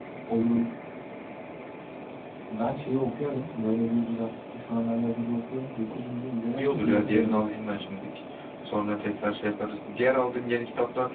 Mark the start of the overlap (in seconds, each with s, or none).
6.6 s